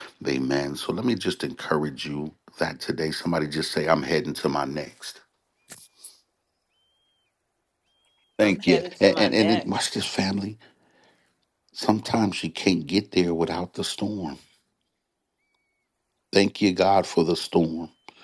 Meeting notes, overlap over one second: present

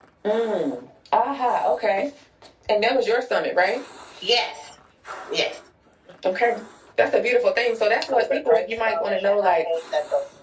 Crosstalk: present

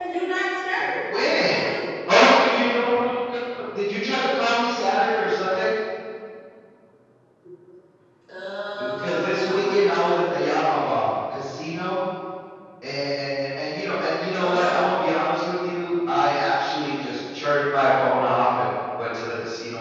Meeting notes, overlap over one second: present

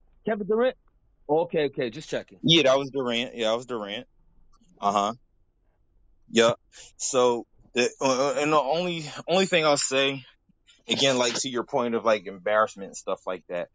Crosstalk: none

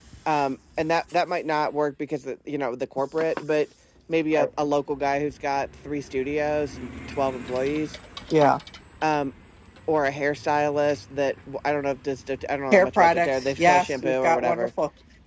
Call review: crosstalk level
present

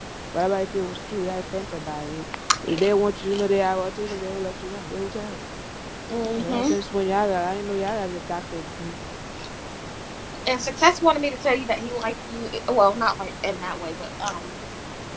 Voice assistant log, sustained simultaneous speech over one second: none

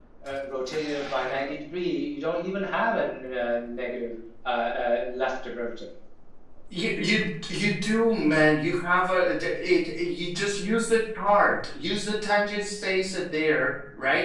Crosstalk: none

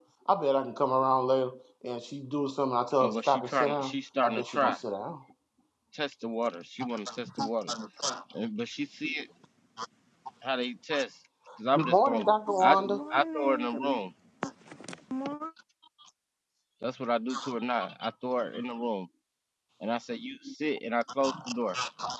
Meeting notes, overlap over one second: present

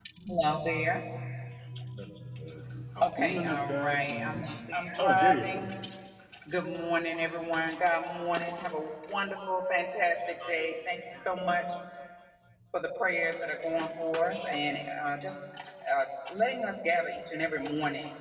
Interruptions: present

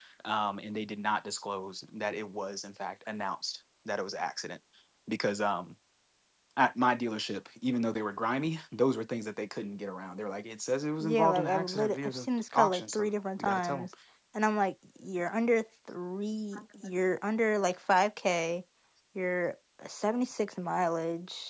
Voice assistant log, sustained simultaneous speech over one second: present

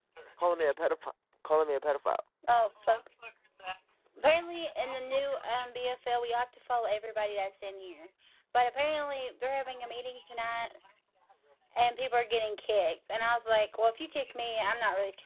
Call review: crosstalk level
none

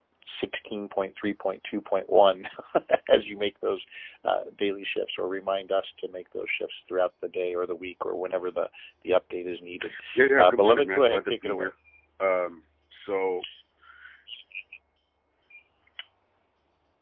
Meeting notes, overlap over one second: present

